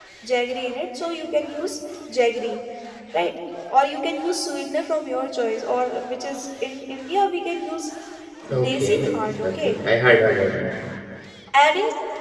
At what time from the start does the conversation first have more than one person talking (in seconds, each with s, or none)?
8.5 s